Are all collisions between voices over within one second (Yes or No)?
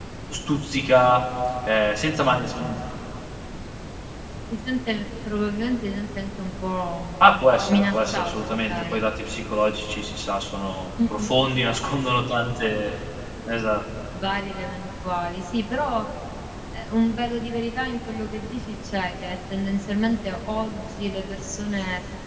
No